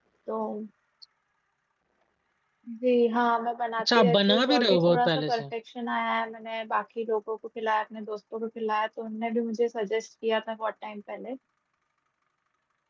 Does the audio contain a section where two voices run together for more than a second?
Yes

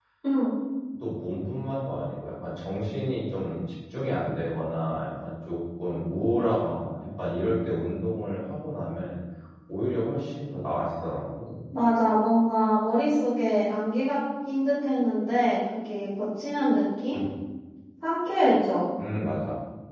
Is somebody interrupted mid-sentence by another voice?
No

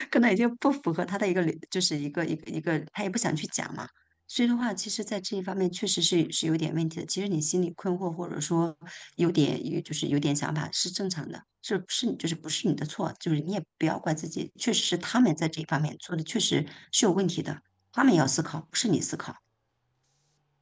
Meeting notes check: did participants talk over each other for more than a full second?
No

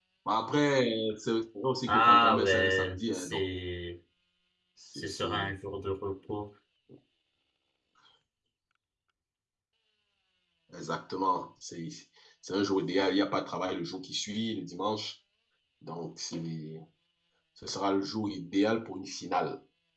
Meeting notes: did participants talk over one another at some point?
Yes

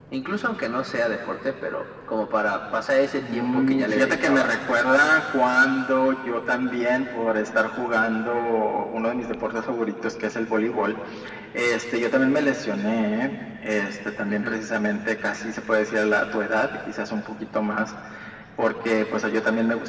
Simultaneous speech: Yes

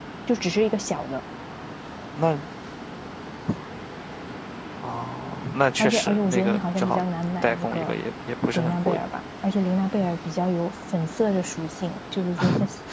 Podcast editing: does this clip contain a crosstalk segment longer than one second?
Yes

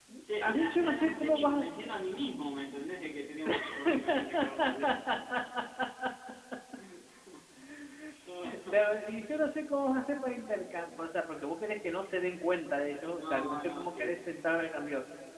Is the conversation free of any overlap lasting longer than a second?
No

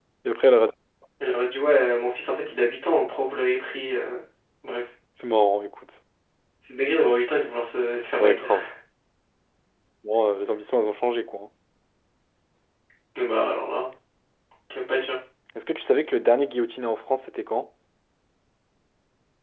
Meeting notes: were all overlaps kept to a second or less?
Yes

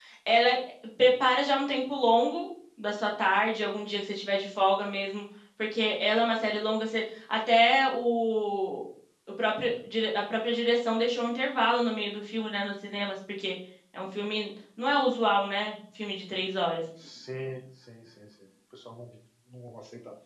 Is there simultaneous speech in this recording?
No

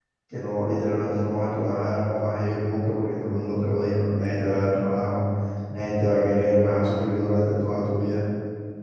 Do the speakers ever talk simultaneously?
No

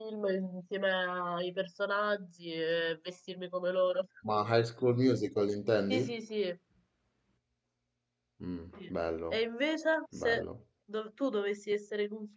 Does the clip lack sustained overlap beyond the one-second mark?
Yes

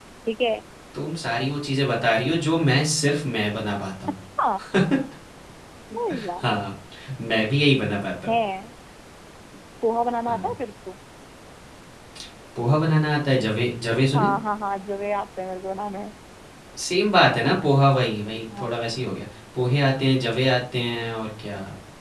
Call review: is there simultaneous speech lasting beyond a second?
No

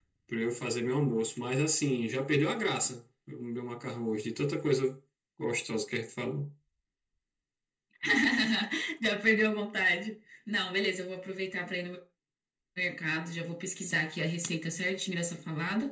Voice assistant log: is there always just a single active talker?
Yes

